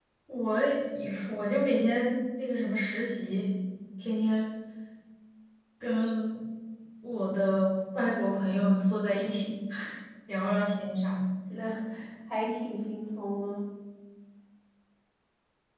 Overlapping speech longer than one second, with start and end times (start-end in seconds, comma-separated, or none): none